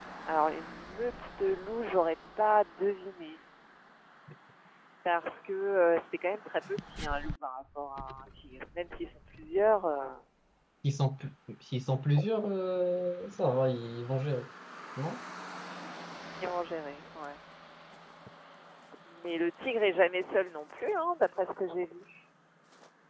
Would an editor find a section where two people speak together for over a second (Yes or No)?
No